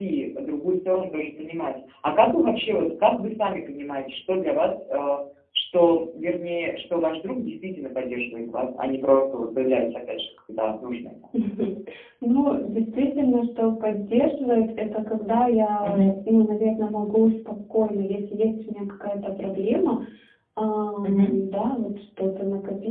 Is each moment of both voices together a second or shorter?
Yes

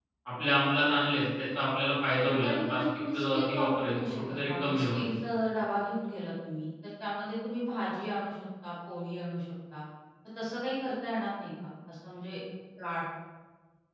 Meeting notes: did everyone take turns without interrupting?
No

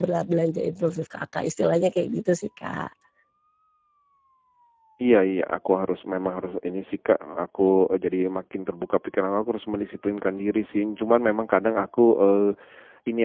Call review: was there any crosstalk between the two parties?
No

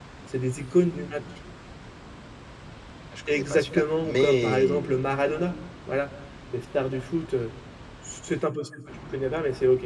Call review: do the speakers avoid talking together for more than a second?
No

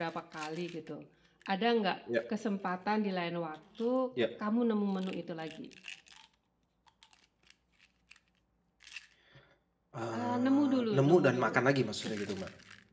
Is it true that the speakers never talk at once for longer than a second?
No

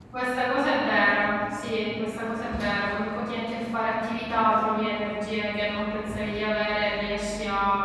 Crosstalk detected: No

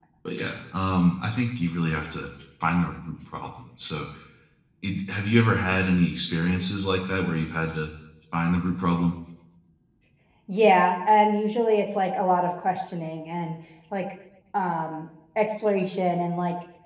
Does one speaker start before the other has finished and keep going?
No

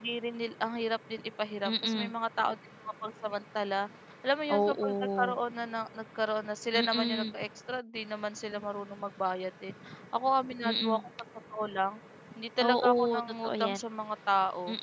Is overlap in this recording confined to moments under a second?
No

